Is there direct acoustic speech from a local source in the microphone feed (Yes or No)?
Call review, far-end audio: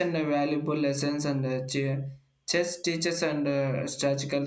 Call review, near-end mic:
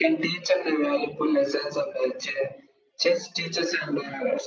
No